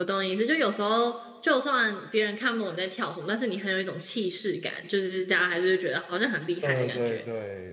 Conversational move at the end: taking over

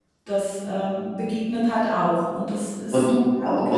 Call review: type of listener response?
taking over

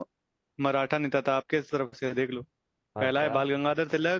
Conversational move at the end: listening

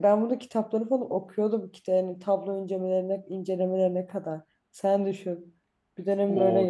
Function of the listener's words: taking over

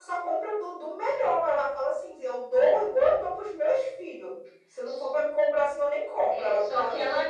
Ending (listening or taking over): taking over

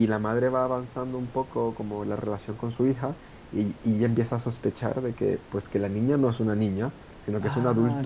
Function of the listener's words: taking over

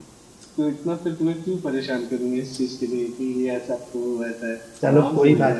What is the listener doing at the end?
taking over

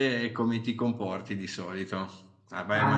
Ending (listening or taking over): listening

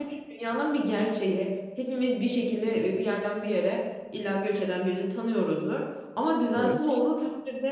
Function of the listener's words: listening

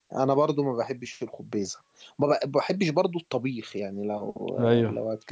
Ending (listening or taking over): listening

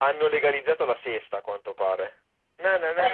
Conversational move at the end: taking over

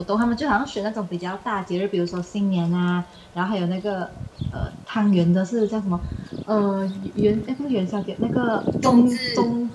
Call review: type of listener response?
listening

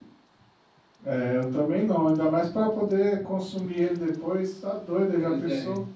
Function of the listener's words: taking over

